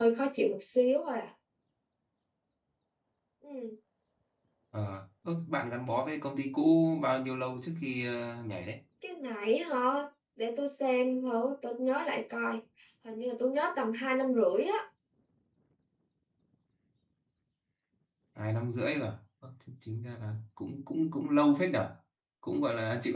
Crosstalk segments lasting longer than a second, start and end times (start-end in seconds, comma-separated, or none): none